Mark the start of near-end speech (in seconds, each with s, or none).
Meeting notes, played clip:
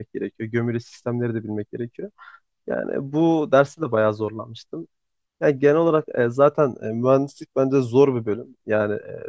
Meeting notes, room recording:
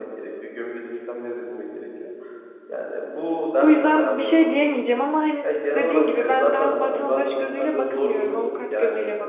3.6 s